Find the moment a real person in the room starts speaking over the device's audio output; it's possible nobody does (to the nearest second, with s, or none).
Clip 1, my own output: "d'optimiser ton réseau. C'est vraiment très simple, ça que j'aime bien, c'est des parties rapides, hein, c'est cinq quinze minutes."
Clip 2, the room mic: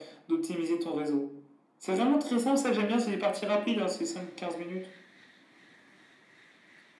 none